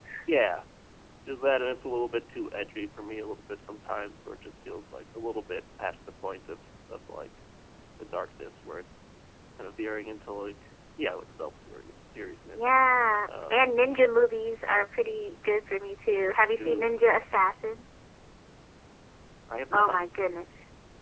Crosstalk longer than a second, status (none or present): none